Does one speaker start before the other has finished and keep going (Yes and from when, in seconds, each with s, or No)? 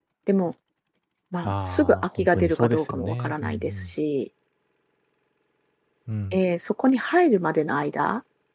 Yes, from 1.4 s